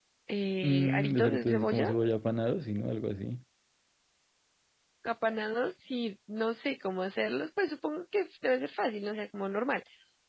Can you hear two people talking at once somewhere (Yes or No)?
Yes